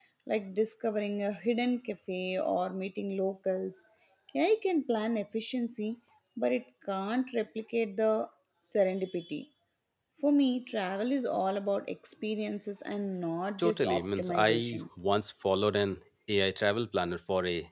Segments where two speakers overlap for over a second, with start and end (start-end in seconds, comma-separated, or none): 13.6-14.8